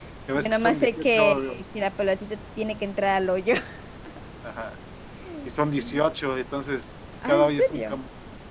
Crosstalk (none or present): present